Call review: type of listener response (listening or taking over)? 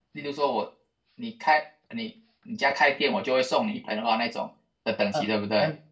taking over